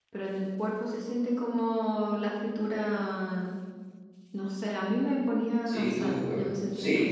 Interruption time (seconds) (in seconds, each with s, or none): 5.7 s